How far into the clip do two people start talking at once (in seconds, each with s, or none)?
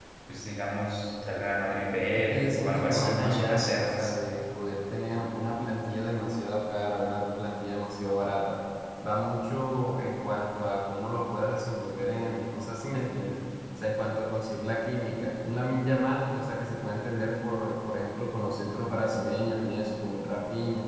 2.1 s